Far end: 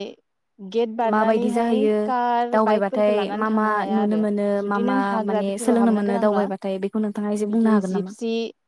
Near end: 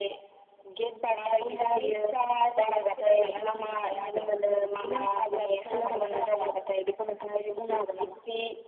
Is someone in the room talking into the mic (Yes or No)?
No